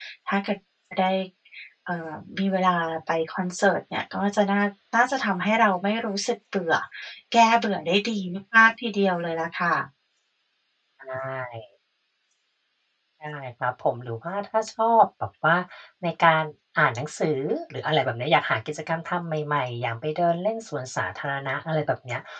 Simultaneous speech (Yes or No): No